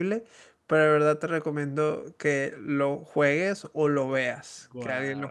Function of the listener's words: taking over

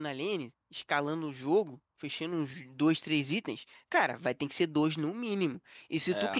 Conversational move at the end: listening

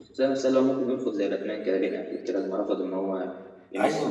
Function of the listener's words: taking over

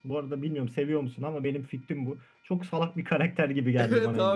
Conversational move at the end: taking over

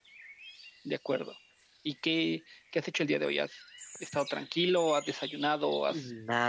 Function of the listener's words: taking over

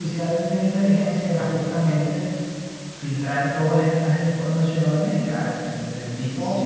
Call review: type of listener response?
taking over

